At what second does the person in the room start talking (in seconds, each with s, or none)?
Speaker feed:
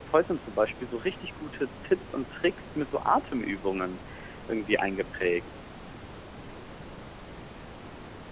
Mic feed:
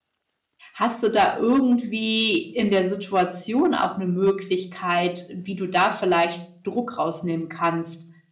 0.7 s